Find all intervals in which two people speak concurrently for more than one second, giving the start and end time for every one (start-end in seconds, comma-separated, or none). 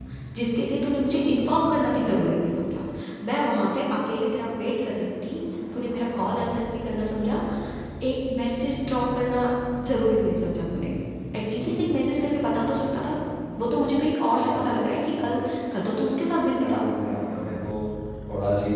none